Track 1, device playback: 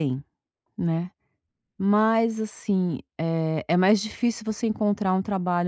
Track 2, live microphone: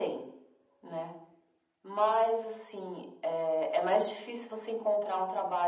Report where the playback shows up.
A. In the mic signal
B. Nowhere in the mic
A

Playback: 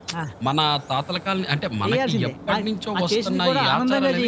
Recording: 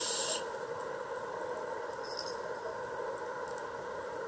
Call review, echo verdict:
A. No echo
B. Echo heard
A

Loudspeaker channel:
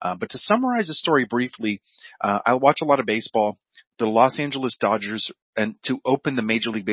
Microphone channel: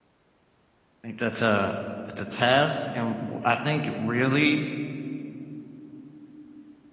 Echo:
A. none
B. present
A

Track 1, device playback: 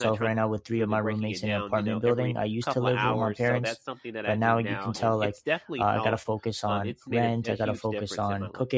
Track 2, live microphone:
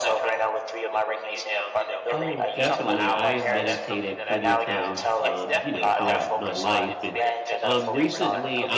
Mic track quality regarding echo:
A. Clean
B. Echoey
B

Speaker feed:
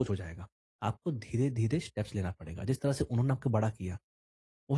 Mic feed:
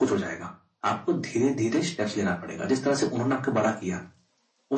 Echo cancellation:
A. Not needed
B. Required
B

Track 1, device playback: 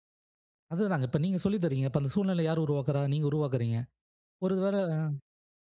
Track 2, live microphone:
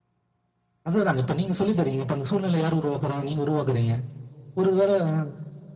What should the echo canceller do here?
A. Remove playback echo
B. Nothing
A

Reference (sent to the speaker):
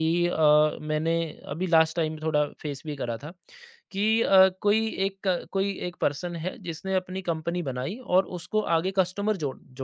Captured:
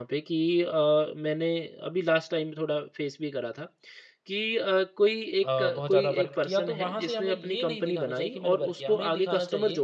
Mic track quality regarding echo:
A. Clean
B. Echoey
B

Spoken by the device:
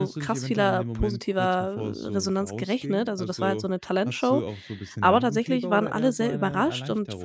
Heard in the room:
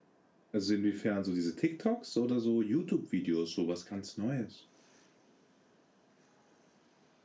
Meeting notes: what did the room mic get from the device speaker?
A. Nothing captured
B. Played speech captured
A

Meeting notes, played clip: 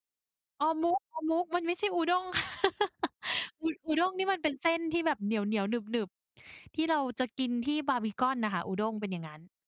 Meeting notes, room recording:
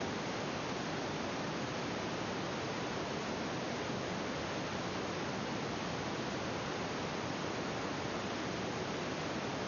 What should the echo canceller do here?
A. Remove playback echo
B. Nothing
B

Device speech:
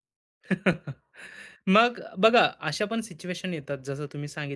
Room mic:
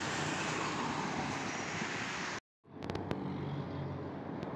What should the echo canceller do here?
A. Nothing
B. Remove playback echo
A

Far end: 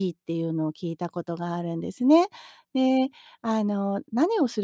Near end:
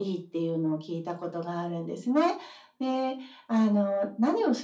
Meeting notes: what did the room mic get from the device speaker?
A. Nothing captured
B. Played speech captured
B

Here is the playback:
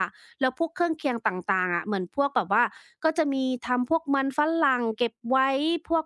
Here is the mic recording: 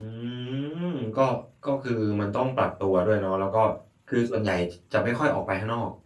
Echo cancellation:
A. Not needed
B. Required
A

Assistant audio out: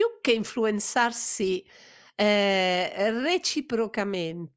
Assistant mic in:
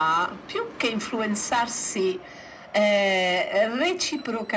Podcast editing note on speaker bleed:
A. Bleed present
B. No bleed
A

